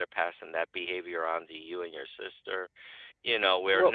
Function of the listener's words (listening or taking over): listening